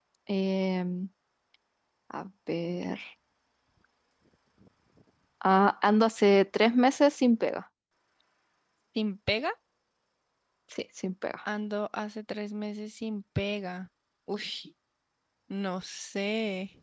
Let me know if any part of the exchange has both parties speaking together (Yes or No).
No